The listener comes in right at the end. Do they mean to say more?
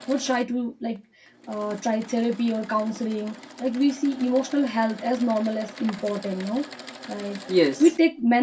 No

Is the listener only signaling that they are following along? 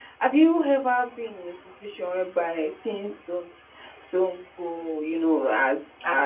Yes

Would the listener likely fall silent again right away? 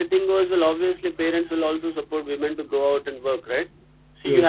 Yes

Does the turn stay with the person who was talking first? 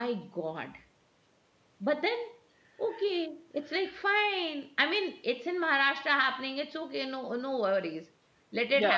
No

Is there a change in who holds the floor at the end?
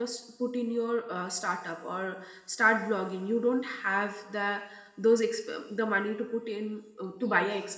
Yes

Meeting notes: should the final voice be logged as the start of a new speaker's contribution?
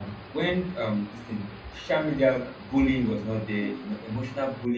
No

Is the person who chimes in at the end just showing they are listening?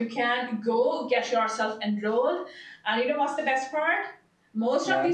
Yes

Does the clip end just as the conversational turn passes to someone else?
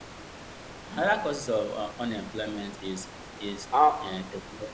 No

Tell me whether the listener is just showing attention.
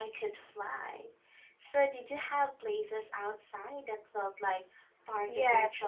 No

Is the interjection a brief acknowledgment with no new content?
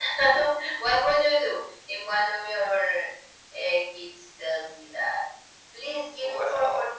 Yes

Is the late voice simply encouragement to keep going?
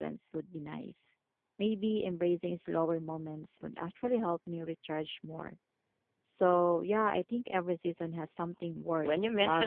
No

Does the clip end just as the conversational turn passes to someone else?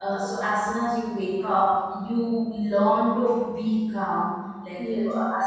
No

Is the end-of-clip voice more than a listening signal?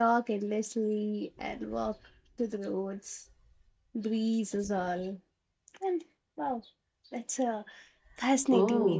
Yes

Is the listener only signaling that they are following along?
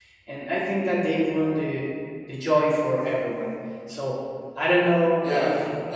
No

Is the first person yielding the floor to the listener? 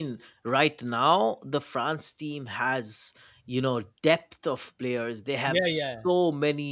No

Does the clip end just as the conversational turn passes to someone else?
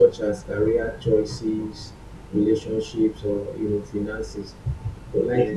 No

